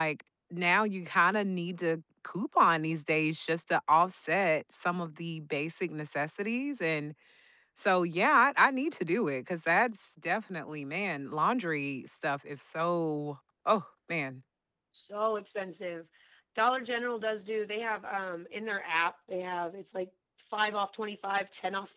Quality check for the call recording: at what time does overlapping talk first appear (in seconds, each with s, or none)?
none